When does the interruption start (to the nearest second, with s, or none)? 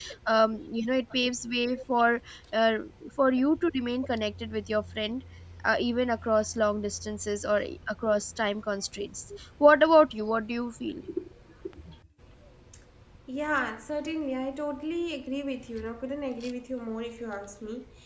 none